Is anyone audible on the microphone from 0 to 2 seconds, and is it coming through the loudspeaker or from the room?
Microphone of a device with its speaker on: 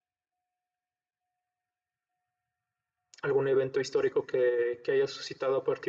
neither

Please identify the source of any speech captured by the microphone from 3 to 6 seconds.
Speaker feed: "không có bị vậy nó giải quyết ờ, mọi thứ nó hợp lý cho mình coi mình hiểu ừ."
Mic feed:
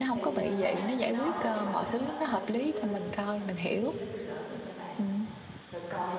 both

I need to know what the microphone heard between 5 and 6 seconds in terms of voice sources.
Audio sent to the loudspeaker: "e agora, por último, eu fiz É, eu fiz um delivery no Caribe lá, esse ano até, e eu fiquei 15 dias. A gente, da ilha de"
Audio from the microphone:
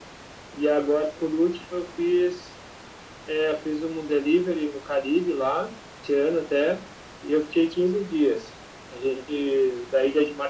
echo only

